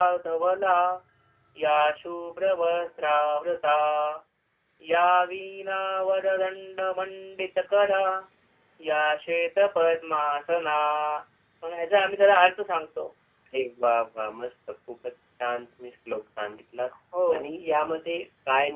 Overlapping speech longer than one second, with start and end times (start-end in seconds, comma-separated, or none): none